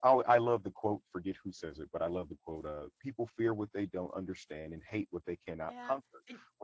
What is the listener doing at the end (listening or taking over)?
taking over